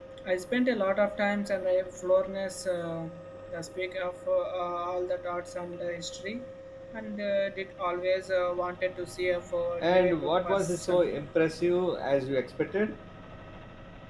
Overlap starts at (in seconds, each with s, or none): 9.8 s